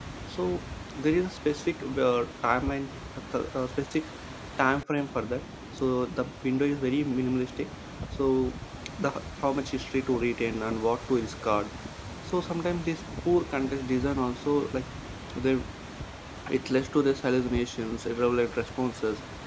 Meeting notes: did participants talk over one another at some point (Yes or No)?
No